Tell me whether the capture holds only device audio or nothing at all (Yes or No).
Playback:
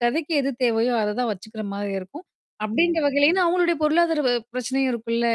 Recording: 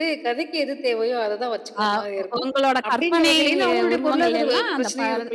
No